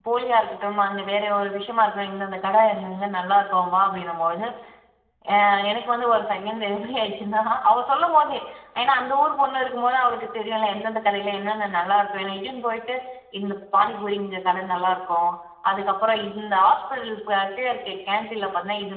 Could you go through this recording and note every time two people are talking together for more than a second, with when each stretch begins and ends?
none

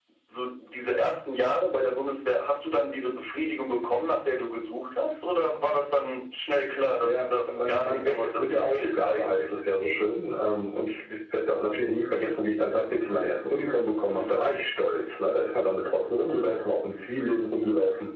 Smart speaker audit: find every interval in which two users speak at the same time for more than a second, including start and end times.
7.0-9.4

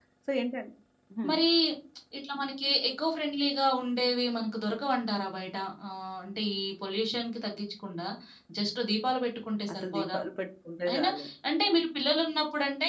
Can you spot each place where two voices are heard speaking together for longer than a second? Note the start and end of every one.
none

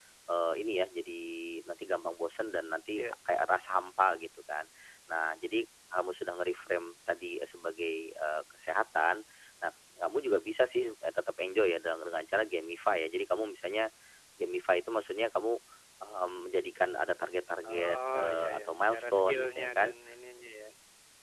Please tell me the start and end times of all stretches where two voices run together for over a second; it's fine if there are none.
17.7-19.9

